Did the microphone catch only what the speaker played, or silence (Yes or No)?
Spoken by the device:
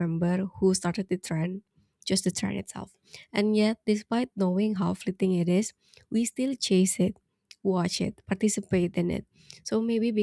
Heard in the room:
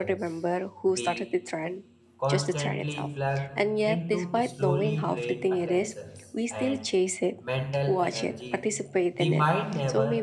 No